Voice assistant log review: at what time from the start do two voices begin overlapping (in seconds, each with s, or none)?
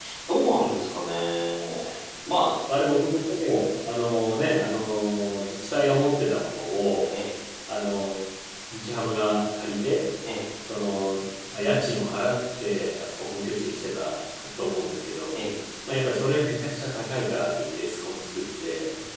none